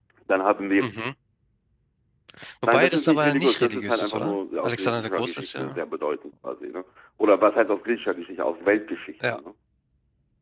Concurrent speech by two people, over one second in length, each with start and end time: 2.7-5.8

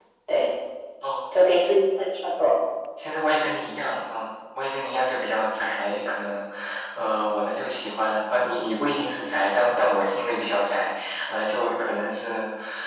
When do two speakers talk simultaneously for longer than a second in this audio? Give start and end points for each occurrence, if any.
none

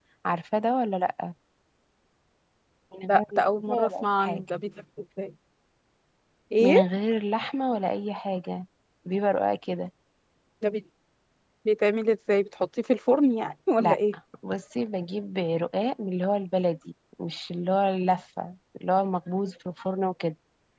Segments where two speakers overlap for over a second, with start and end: 3.1-4.4

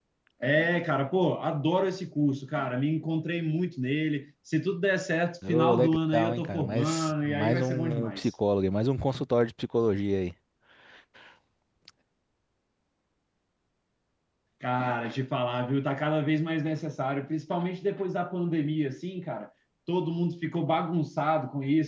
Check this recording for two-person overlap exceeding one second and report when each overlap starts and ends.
5.5-8.3

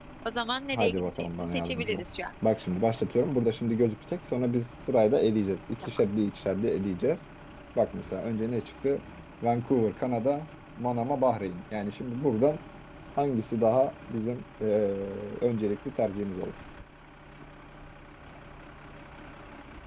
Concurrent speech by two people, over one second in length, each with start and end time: 0.7-2.0

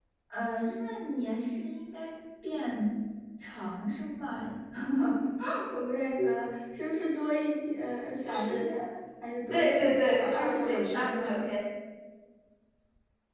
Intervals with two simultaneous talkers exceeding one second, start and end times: 9.5-11.4

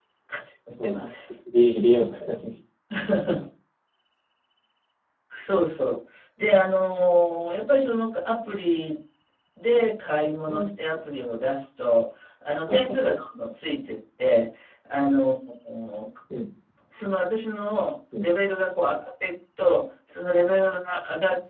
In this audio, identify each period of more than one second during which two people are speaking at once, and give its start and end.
none

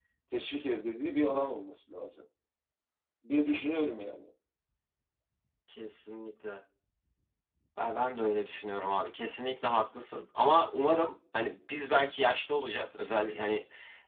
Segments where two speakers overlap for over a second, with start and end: none

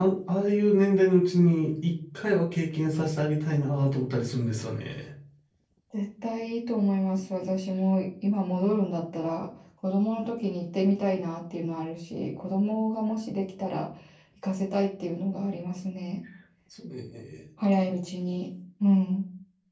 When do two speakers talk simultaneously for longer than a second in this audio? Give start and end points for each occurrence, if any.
none

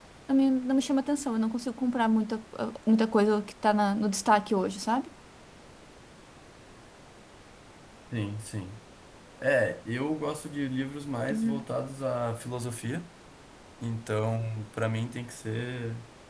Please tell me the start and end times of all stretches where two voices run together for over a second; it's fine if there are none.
none

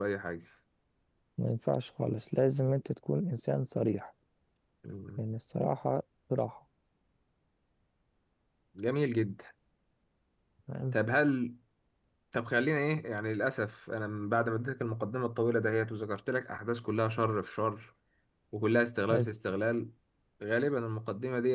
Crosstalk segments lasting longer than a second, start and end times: none

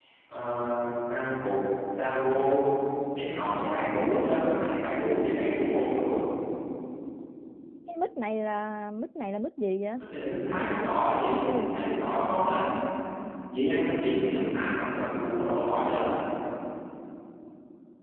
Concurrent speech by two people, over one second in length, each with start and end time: none

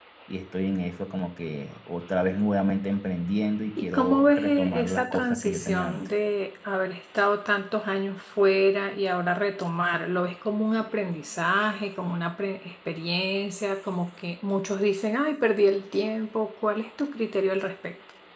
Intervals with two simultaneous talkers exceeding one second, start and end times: 3.8-6.1

